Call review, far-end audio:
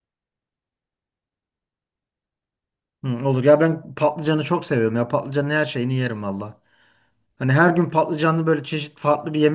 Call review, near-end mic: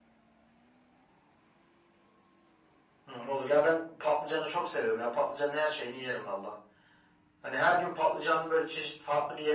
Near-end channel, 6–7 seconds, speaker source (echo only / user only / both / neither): echo only